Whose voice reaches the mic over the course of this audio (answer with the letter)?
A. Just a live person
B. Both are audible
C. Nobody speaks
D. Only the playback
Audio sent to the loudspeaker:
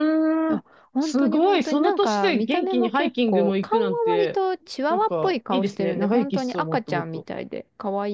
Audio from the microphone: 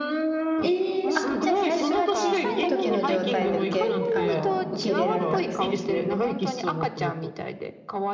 B